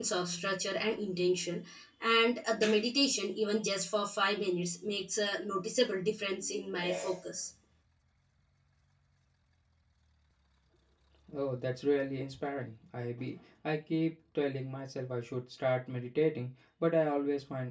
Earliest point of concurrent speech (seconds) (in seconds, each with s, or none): none